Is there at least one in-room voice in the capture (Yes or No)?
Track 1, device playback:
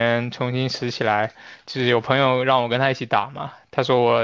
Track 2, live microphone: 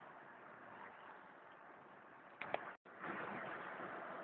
No